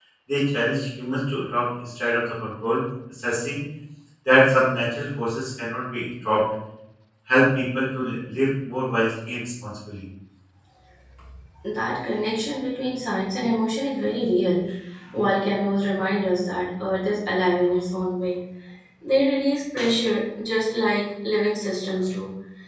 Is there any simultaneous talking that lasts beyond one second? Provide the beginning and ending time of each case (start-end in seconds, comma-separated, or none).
none